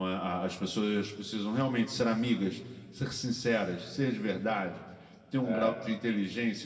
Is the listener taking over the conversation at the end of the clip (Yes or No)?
No